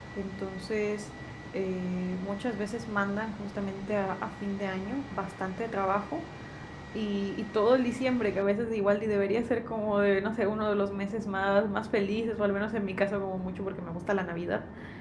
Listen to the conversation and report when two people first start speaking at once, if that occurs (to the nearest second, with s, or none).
none